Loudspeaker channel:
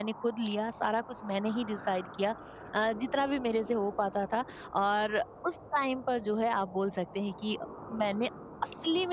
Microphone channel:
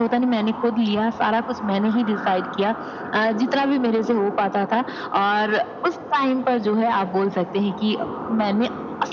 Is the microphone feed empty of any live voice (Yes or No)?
Yes